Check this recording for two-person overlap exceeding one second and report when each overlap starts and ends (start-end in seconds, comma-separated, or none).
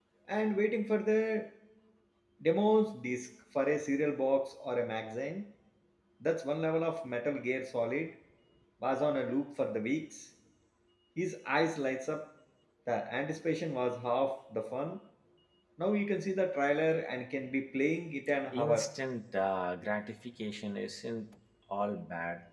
none